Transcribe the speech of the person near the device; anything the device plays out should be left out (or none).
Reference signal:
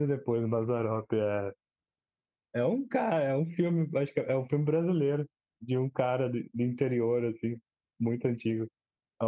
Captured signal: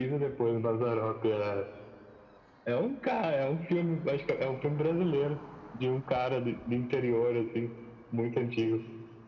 none